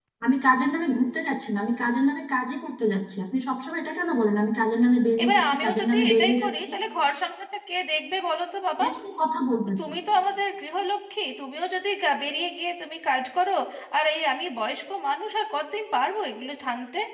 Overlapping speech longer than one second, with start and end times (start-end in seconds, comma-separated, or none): 5.2-6.7